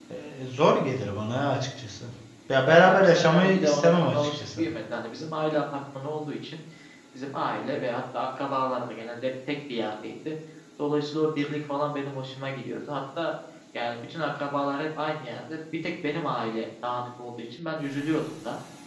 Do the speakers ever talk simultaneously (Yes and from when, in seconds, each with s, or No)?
Yes, from 2.6 s